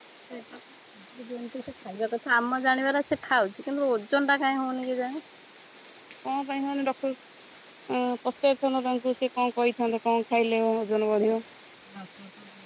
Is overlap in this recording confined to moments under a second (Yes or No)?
Yes